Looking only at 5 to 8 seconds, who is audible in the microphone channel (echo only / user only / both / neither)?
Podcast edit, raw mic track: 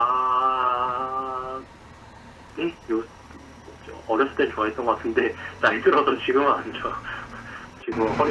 echo only